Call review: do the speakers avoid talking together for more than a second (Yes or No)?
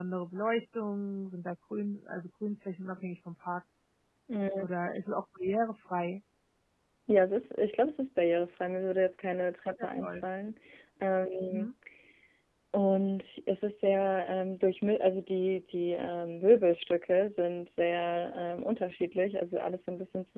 Yes